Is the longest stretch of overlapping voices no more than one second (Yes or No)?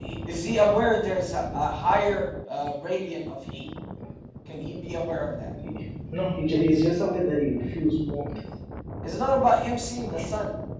Yes